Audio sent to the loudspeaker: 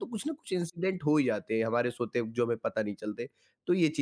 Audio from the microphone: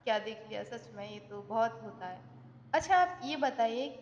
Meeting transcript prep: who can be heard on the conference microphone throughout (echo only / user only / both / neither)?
user only